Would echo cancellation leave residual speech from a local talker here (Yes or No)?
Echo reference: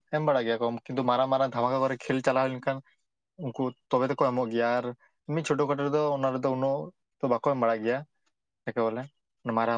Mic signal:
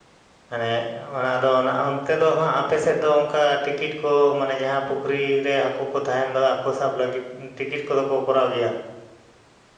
Yes